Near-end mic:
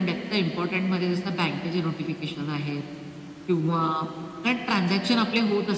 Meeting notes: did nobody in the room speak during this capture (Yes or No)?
Yes